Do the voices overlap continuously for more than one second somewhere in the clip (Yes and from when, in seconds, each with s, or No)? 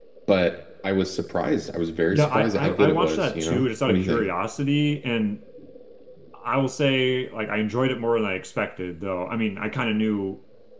Yes, from 2.1 s